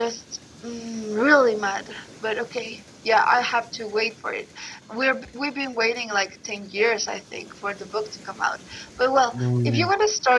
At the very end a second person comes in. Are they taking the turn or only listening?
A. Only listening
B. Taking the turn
A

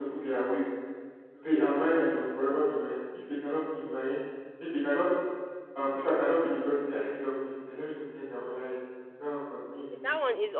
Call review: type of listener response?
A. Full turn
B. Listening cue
A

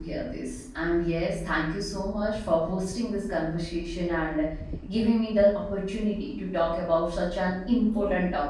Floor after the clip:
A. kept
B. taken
A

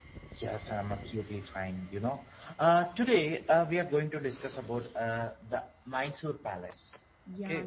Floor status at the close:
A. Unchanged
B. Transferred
B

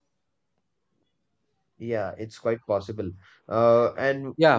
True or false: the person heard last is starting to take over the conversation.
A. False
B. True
B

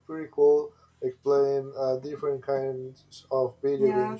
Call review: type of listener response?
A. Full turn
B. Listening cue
A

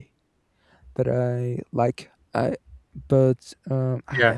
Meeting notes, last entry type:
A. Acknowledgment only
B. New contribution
B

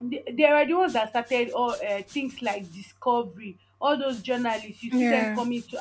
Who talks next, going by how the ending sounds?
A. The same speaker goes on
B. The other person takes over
A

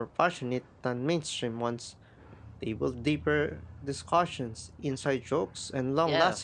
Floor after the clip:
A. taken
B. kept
A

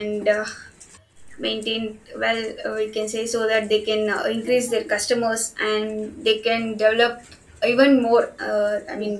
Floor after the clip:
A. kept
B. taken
A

